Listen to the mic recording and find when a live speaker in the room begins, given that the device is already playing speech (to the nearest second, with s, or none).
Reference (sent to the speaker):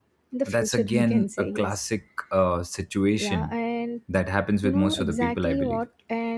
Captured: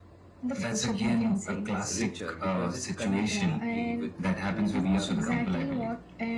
2 s